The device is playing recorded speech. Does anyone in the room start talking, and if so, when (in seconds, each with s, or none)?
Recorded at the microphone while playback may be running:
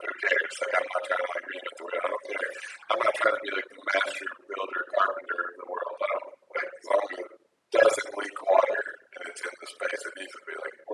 none